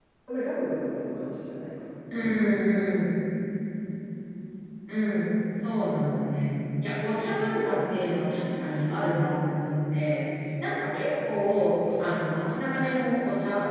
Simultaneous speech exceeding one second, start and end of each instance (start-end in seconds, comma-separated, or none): none